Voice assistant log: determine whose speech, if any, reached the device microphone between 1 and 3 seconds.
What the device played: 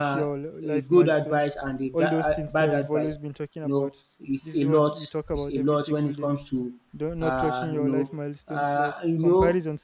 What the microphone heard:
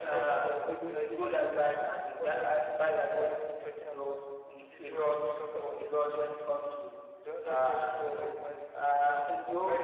both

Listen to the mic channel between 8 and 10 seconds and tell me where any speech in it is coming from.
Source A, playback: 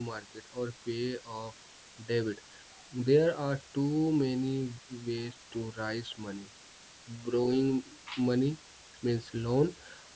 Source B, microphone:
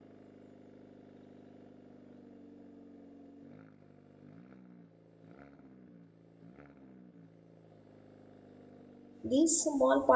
user only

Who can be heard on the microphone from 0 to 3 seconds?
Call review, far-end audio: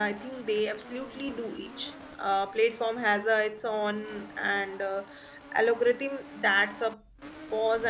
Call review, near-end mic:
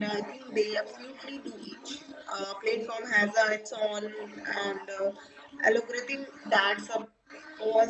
echo only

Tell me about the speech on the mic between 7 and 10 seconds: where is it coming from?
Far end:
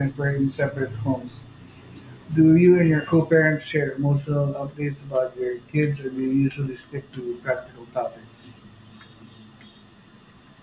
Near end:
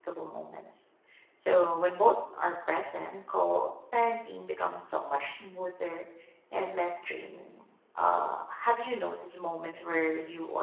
user only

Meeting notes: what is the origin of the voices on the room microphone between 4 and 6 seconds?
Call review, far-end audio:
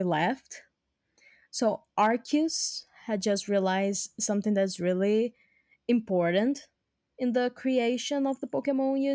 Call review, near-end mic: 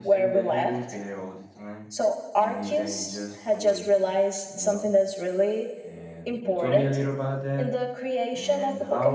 both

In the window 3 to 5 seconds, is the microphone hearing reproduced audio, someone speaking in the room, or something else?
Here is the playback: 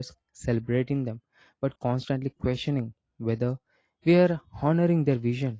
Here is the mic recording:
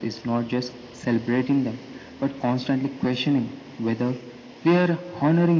echo only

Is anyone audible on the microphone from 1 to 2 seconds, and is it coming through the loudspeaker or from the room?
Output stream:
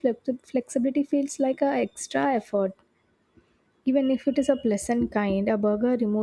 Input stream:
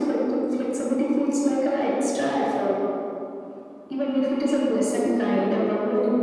echo only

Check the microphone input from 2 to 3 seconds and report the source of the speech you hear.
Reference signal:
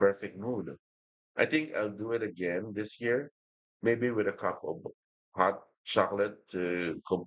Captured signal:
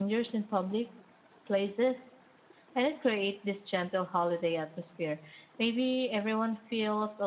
user only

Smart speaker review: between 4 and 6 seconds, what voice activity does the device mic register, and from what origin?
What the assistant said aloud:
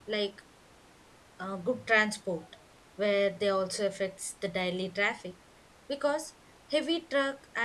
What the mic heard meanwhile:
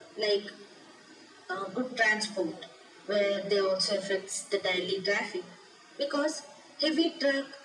echo only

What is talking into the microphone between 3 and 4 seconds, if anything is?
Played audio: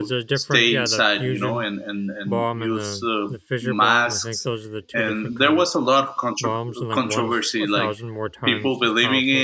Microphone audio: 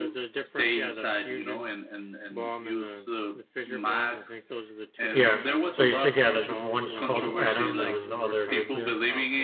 echo only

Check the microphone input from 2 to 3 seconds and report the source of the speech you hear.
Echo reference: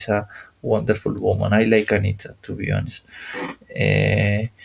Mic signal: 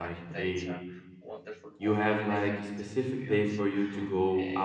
both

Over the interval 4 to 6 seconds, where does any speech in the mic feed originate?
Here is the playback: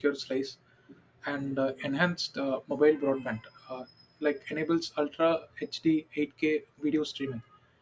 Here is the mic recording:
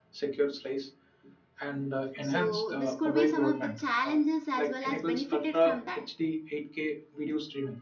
both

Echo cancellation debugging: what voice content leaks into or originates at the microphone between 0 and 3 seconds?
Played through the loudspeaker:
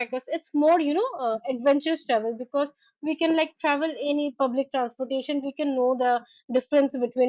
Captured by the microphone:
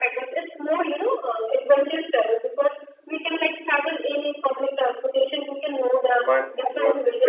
echo only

